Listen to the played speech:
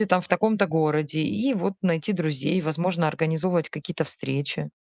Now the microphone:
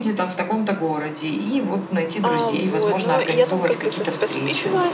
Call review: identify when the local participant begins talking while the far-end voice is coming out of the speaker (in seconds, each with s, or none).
2.2 s